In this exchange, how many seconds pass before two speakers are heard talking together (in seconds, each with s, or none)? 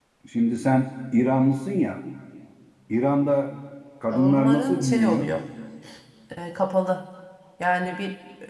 4.1 s